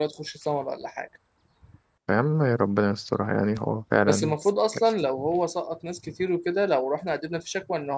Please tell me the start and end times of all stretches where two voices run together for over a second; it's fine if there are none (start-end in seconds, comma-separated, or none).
none